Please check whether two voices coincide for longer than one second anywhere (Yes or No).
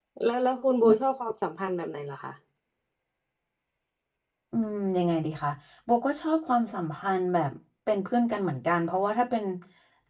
No